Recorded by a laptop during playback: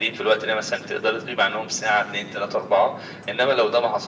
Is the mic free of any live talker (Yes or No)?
Yes